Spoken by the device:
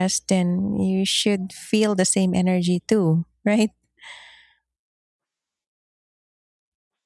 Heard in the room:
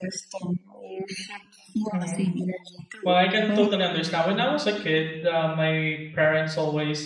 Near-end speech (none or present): present